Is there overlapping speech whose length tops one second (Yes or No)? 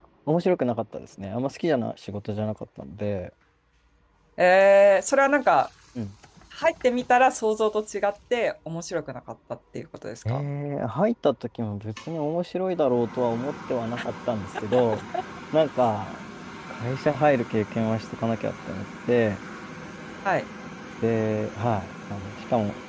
No